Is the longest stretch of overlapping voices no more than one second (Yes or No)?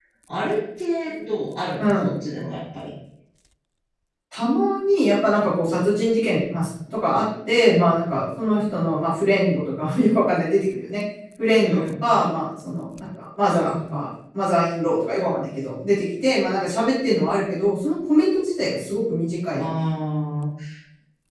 Yes